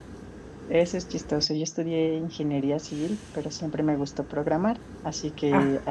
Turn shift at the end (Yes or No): No